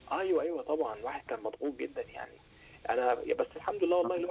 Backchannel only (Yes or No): Yes